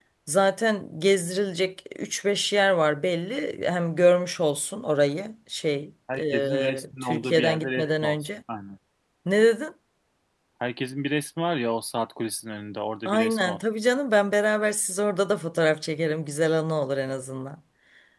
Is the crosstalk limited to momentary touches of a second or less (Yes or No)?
No